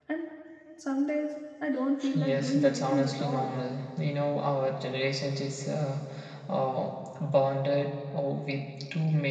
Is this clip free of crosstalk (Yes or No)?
No